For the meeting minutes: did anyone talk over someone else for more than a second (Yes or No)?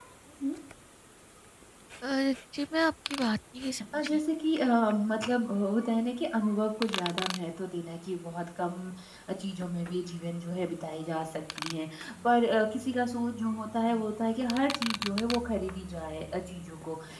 No